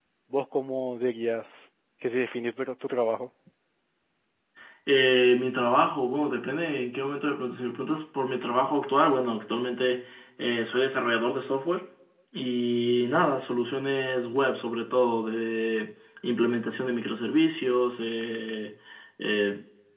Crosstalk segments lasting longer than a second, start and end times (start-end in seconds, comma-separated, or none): none